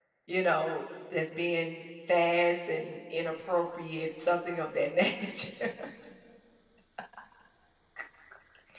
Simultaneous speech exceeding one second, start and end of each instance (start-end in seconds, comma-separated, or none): none